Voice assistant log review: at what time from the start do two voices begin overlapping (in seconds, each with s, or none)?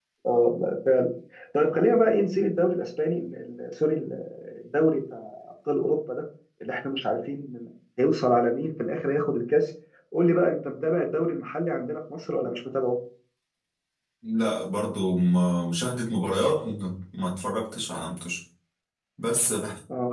none